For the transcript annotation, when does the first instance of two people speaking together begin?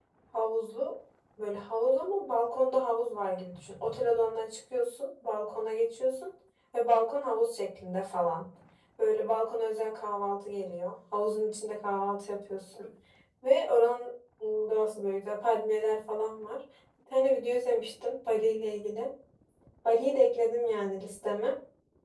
none

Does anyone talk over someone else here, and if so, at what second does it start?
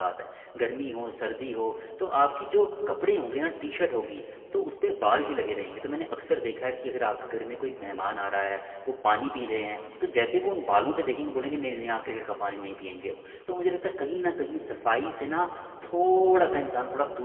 none

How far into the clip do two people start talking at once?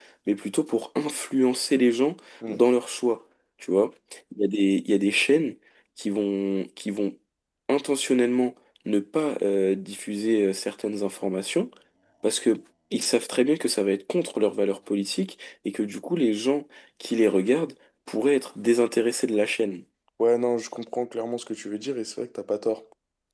none

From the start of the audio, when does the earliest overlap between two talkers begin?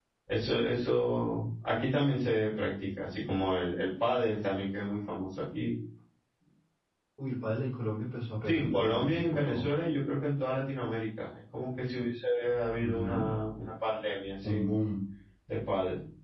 8.5 s

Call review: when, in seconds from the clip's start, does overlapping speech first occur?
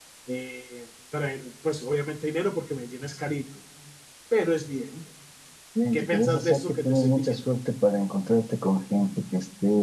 5.9 s

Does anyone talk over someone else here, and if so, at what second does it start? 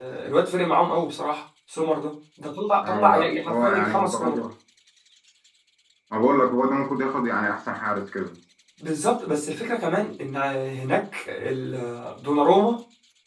2.8 s

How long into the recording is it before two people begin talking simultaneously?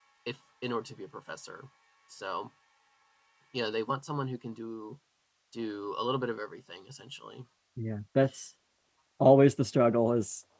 none

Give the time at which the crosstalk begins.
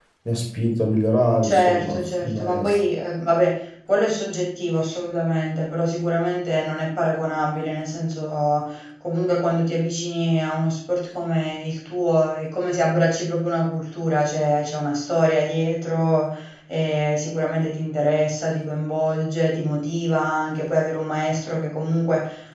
1.4 s

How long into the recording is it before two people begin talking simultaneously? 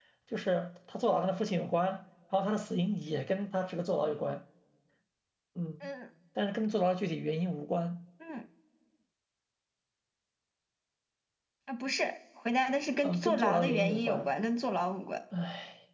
13.0 s

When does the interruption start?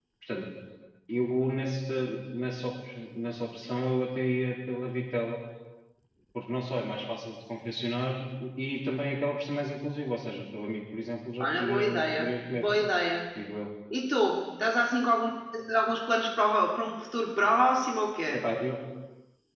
11.4 s

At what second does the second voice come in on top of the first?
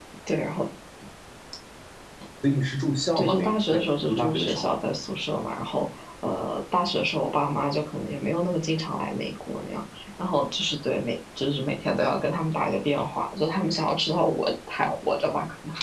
3.2 s

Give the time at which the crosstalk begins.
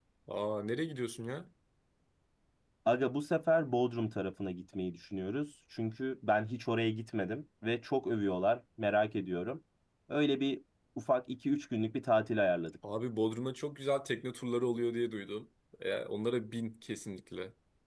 none

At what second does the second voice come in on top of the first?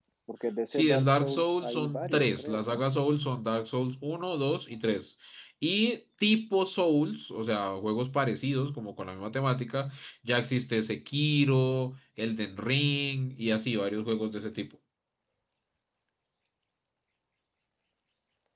0.7 s

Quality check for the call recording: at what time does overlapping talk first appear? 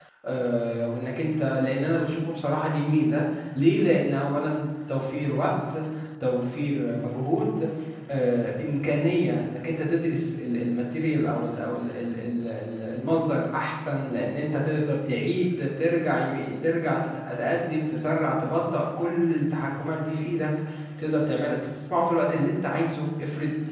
none

